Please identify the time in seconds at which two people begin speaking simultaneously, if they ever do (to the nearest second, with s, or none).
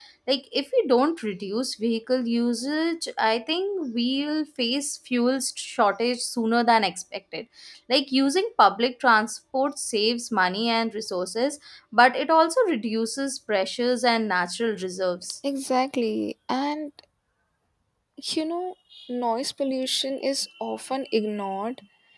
none